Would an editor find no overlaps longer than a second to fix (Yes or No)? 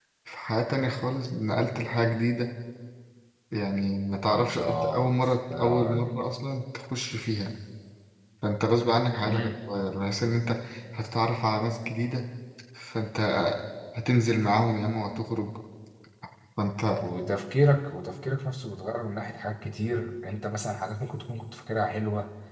No